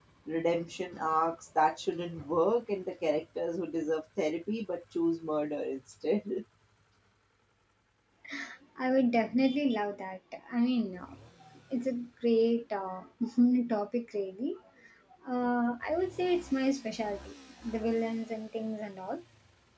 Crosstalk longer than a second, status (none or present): none